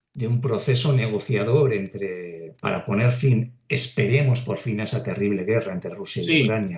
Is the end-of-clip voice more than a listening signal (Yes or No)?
Yes